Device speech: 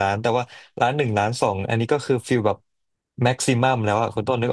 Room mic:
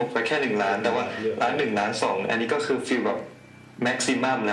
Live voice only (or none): เดี๋ยวช่วยคุณบาสเลือกได้